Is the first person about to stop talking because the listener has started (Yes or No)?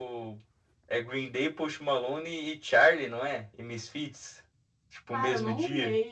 Yes